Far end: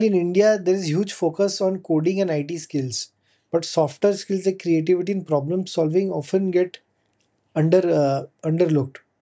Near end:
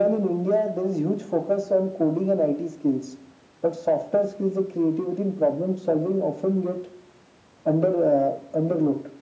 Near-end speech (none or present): none